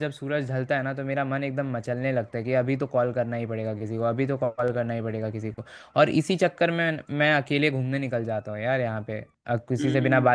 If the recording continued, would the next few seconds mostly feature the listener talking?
No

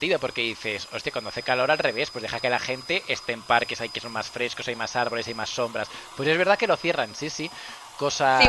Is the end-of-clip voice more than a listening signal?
Yes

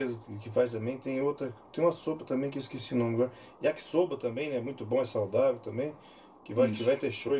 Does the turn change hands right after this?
No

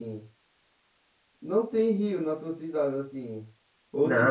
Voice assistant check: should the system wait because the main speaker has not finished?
No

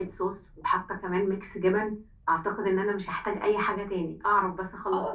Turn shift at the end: Yes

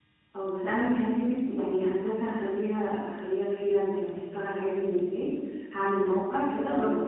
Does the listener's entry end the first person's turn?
No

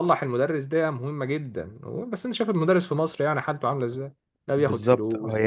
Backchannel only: No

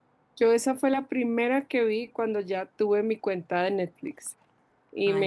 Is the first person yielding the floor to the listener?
No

